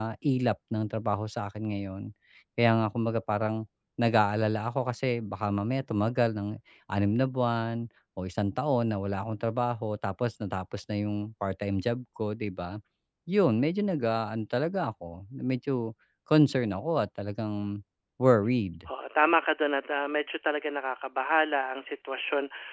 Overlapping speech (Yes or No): No